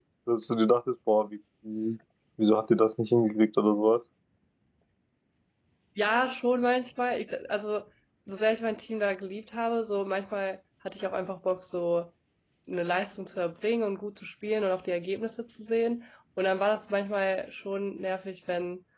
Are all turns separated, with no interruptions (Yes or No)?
Yes